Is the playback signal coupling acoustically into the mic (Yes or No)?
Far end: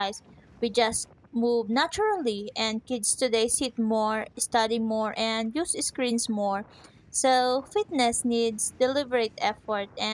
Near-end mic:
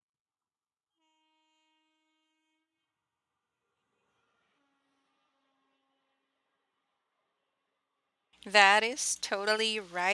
No